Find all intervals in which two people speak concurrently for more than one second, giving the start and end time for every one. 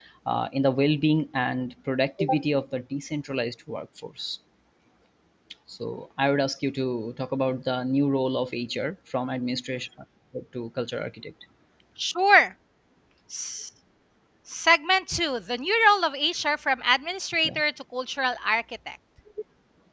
none

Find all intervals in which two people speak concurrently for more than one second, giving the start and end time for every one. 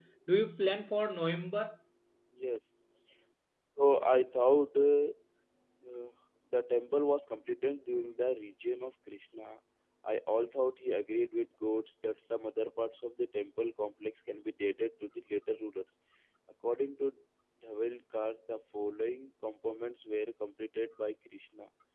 none

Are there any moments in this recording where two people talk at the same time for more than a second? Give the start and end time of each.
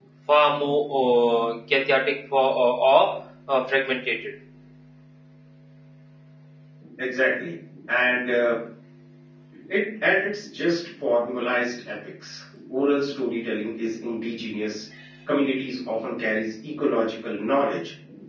none

